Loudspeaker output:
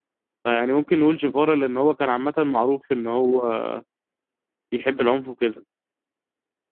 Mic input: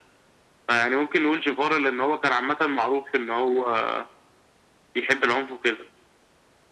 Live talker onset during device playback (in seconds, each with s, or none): none